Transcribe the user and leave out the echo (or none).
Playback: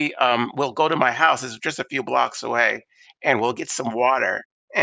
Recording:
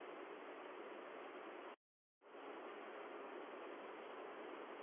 none